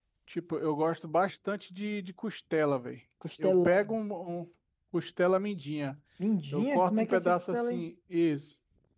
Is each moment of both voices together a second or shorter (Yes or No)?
No